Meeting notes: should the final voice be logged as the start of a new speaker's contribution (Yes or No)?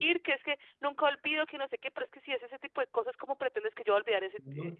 Yes